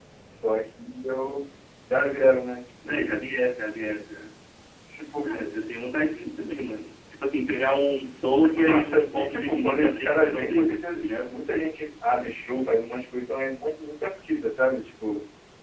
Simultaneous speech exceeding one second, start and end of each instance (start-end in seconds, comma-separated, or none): 8.5-11.4